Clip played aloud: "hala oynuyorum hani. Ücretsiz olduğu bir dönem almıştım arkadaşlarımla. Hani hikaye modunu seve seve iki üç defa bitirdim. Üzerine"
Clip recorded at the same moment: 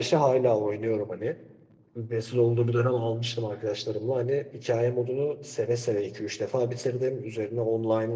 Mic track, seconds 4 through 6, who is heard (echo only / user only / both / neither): echo only